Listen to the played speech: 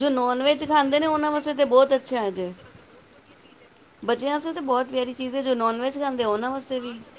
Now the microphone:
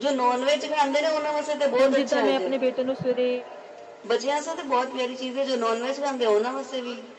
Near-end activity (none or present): present